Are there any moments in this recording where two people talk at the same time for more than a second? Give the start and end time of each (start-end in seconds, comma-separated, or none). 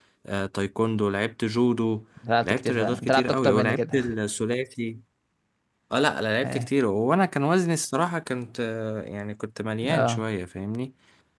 2.4-4.0